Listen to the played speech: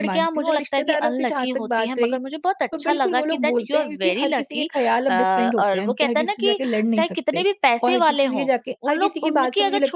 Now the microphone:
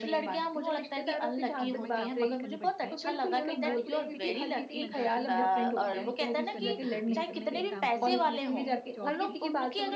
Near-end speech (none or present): present